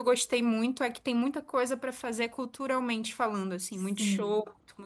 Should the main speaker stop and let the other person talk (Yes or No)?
Yes